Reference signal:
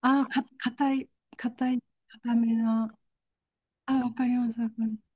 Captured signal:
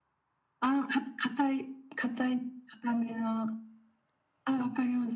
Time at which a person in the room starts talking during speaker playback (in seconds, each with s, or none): none